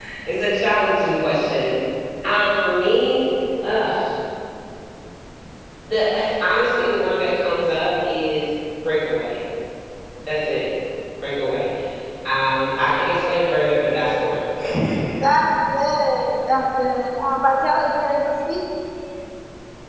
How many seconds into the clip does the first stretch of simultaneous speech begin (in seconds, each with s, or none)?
none